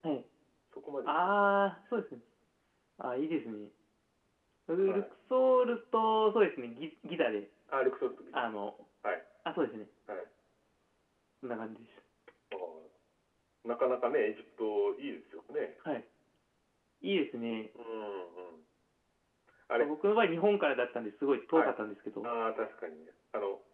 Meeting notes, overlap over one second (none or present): none